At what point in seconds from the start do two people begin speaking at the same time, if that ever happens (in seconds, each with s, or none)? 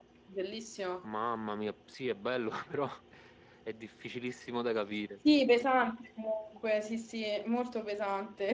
none